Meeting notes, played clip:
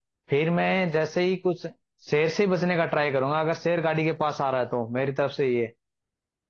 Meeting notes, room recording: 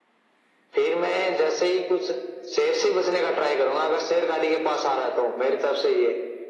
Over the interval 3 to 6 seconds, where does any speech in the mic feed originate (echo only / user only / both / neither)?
echo only